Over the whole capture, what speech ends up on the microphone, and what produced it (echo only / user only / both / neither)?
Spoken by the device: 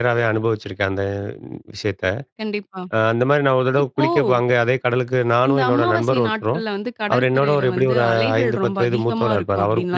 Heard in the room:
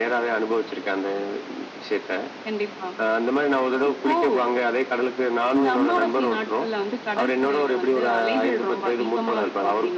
echo only